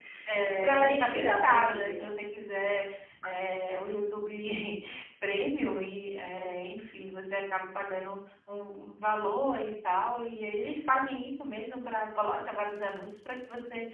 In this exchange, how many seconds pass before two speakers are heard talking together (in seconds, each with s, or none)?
0.6 s